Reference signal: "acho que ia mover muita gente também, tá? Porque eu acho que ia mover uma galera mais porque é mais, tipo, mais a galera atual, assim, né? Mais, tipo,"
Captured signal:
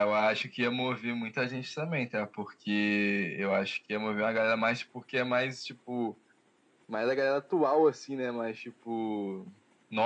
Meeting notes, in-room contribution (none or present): none